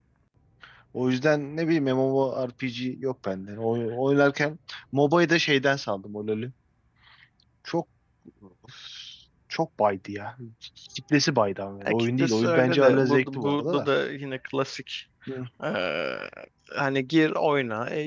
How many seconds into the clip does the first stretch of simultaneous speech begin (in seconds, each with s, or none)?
11.8 s